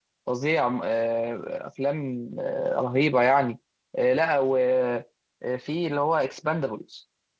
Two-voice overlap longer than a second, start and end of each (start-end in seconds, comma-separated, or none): none